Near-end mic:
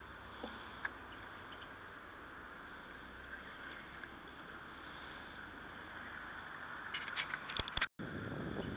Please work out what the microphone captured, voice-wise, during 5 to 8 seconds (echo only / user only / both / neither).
neither